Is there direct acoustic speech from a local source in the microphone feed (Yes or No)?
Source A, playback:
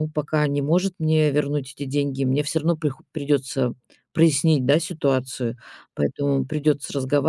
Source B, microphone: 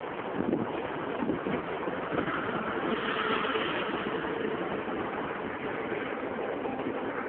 No